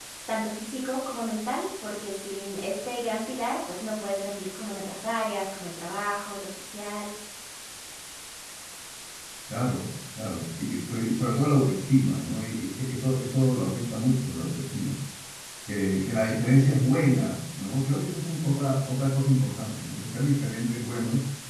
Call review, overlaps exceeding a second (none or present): none